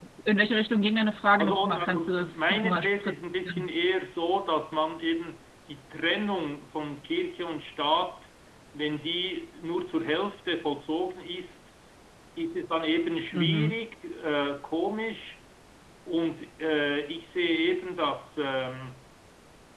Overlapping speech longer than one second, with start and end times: 1.4-3.7

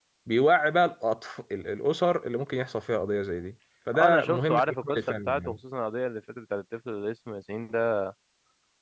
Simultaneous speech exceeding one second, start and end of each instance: 4.0-5.6

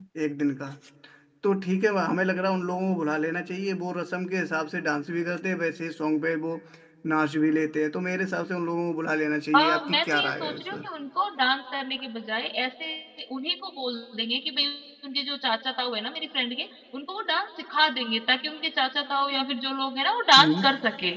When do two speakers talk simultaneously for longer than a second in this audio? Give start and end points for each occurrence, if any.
9.5-10.9

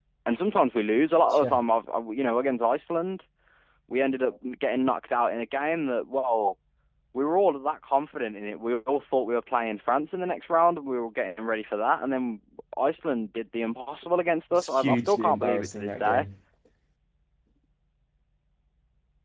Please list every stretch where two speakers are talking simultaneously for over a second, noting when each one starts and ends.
14.5-16.2

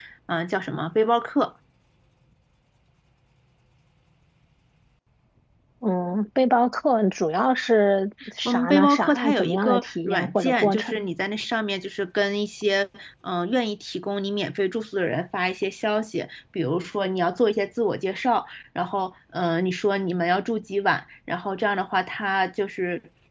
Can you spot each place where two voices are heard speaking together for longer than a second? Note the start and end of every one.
8.4-11.1

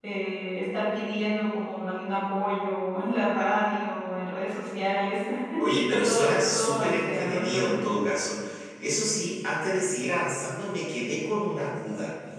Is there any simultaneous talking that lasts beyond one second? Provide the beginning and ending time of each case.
5.6-7.6

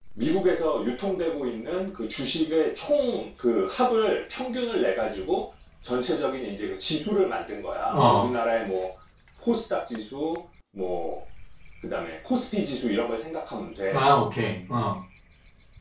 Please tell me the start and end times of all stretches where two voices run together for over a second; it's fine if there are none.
none

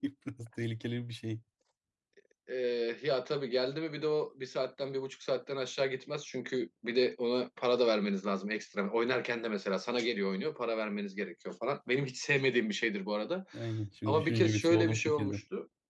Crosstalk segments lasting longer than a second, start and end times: 14.1-15.4

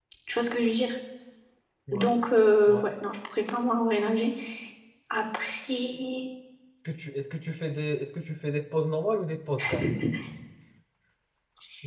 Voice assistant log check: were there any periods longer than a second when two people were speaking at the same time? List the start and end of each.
none

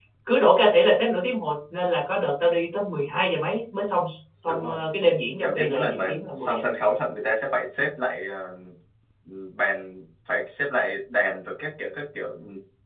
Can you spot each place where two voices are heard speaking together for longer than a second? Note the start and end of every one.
5.4-6.6

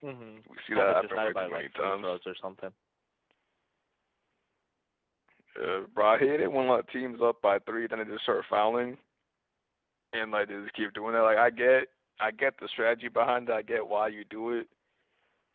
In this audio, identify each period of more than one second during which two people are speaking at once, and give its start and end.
0.7-2.2

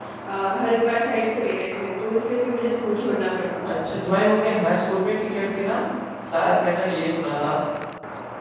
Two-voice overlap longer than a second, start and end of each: none

